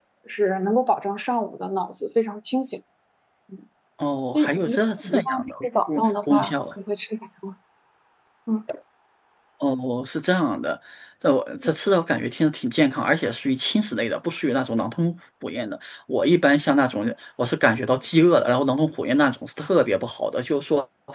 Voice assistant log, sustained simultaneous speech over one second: present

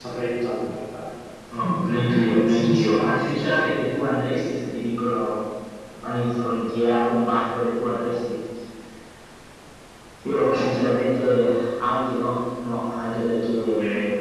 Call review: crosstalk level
present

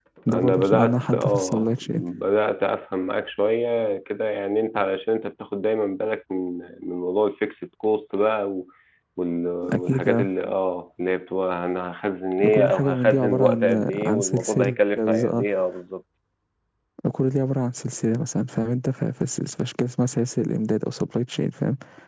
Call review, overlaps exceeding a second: present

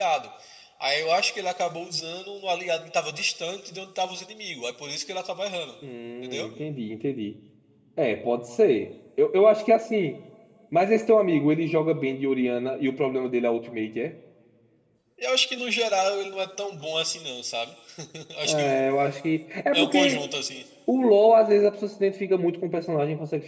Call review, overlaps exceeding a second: none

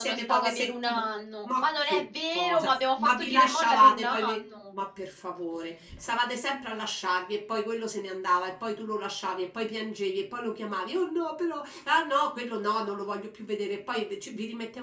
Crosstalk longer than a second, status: present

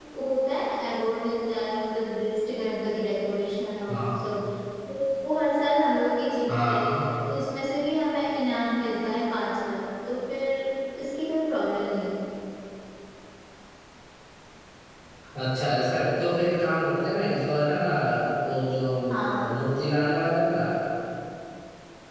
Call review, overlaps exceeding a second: none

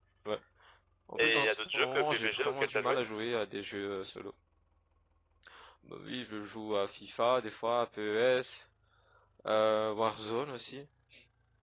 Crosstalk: present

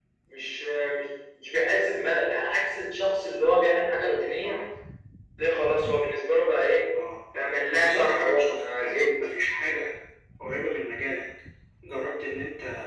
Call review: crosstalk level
present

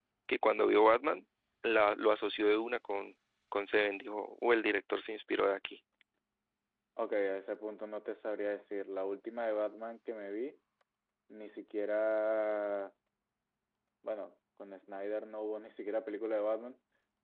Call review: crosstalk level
none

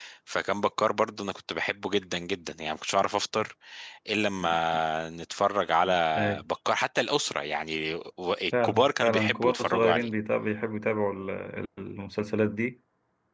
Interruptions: present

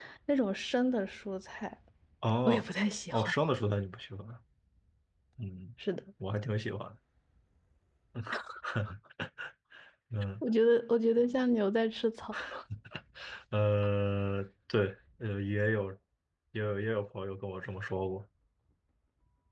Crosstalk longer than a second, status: none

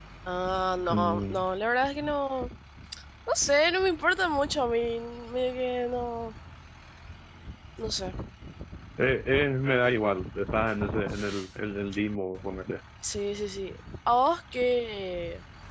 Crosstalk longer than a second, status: none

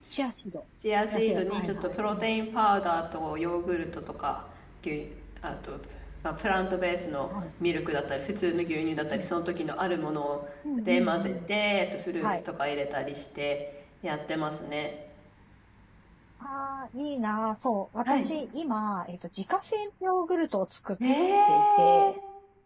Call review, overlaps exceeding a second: present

